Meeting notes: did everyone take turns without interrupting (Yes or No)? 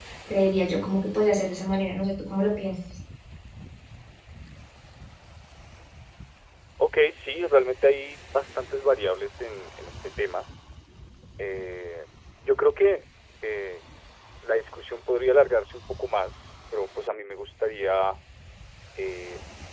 Yes